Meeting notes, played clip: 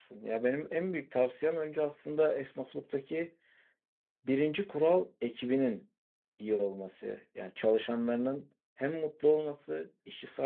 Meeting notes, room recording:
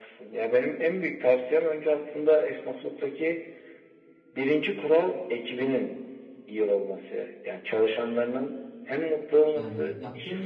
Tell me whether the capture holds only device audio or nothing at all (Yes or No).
No